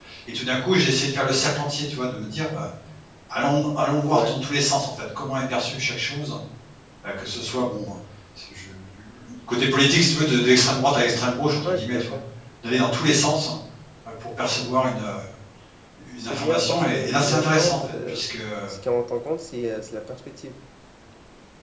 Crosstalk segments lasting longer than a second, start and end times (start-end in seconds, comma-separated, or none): 16.2-18.2